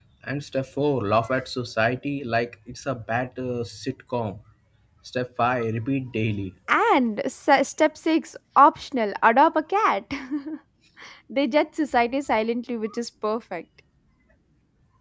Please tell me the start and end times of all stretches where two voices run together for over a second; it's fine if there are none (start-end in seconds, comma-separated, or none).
none